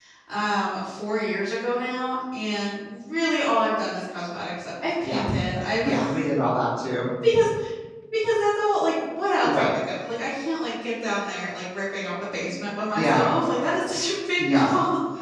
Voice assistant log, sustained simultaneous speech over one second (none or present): none